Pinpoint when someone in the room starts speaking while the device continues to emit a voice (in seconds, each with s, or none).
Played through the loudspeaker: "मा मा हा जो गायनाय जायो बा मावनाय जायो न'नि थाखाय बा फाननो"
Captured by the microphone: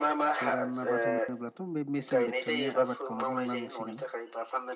0.4 s